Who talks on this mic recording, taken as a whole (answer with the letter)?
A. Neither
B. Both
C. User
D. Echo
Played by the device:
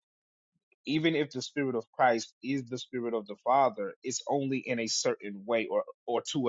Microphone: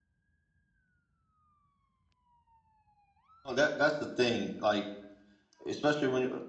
C